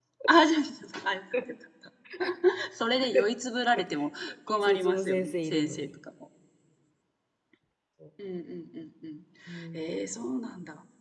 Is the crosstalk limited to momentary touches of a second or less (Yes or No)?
No